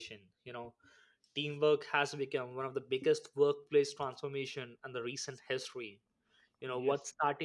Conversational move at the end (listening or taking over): listening